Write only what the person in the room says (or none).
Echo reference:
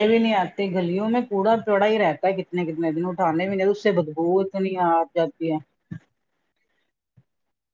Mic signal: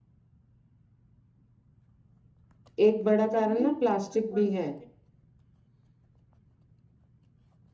ایک بڑا کارن نا پلاسٹک بھی ہے